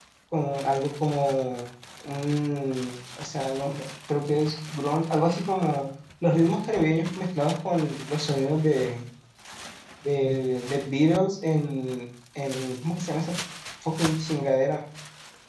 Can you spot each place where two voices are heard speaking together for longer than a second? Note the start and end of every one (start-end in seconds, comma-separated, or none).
none